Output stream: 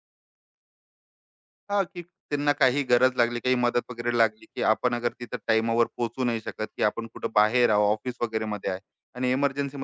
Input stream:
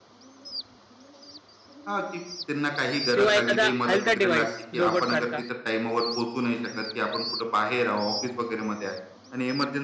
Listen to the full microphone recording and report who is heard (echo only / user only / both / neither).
both